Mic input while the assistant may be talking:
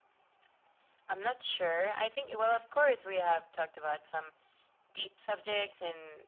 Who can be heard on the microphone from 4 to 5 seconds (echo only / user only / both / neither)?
echo only